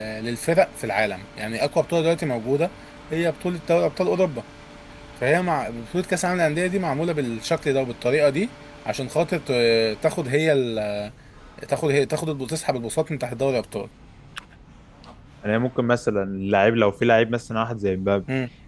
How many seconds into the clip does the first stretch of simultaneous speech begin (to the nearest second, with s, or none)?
none